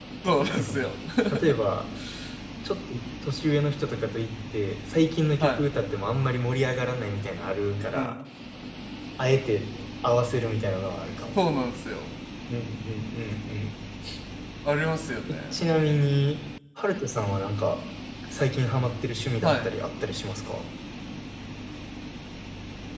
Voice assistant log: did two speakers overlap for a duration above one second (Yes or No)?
No